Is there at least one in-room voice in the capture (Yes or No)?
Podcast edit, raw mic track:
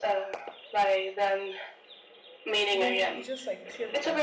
Yes